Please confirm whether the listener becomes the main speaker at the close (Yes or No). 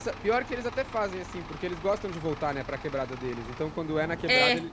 No